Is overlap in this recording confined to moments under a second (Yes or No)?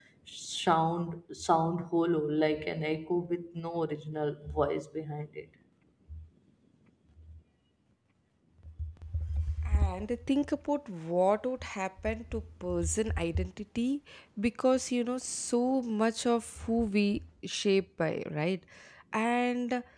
Yes